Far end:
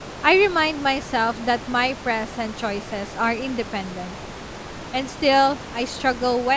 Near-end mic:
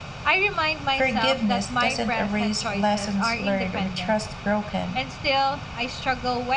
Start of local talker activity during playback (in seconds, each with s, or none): 0.9 s